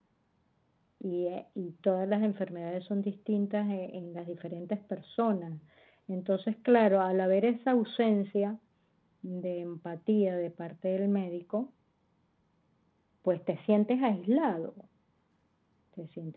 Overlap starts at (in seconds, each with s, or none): none